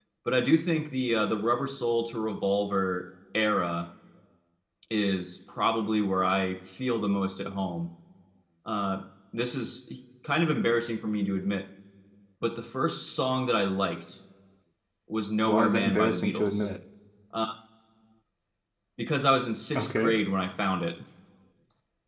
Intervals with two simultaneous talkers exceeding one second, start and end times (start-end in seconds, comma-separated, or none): 15.4-16.7